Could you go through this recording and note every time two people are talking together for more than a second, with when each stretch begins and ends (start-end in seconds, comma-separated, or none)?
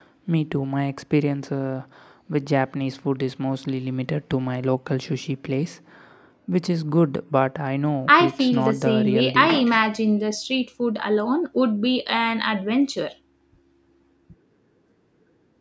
8.1-9.6